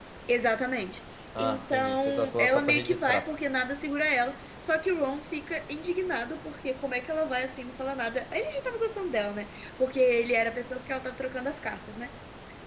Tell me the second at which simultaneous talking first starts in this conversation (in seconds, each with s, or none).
1.4 s